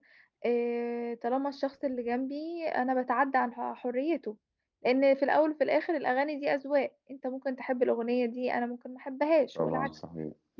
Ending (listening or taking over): taking over